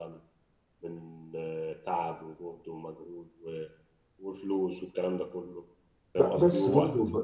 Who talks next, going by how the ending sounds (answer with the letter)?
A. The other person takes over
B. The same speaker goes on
A